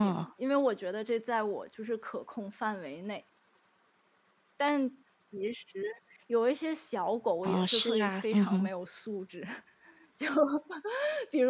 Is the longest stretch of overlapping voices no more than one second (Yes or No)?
No